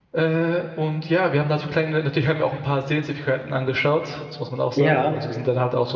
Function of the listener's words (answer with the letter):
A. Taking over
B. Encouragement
B